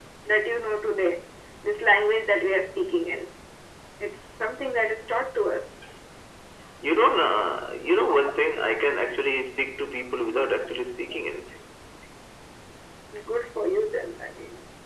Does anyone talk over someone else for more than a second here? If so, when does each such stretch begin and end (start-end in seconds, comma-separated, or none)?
none